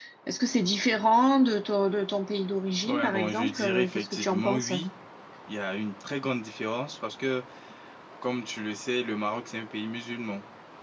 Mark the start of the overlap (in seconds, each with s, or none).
2.8 s